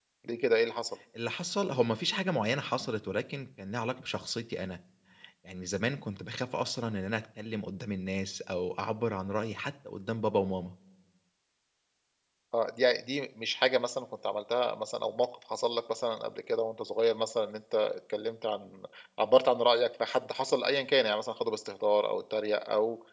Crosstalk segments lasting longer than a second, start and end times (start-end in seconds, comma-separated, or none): none